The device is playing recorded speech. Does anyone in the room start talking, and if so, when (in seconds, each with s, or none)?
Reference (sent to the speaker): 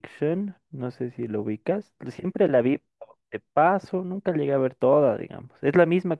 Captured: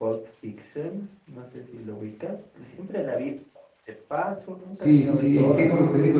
4.7 s